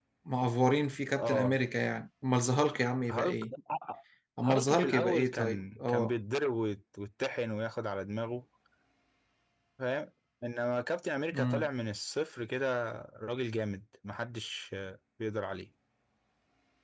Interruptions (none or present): present